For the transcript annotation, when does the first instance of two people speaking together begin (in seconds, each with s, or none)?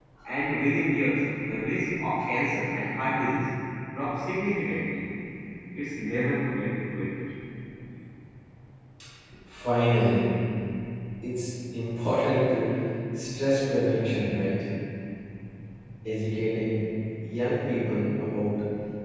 none